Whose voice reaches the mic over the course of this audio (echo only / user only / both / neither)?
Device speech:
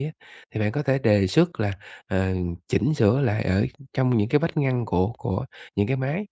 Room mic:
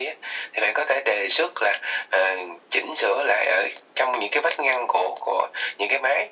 echo only